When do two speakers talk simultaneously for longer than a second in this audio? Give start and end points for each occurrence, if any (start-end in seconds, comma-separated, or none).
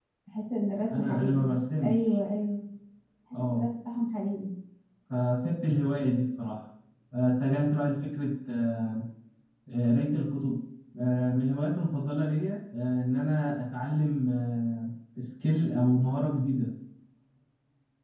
0.9-2.2